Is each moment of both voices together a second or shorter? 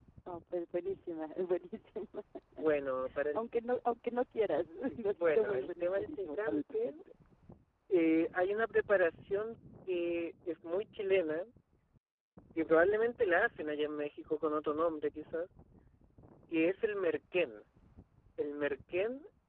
No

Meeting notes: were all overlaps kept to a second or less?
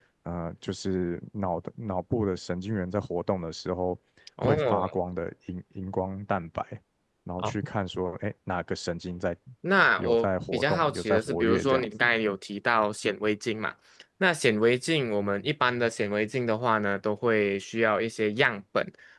No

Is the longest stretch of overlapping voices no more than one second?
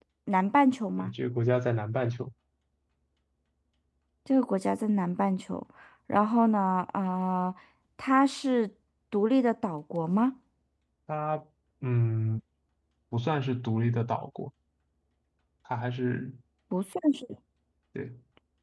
Yes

